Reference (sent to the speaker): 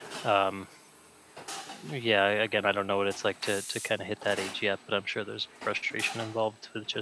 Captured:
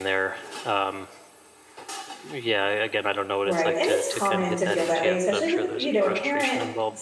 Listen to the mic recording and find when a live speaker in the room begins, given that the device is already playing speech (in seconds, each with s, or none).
3.4 s